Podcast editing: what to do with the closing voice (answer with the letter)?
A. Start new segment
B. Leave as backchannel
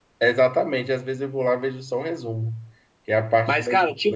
A